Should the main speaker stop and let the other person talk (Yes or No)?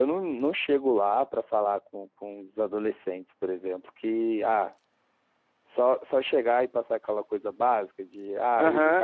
Yes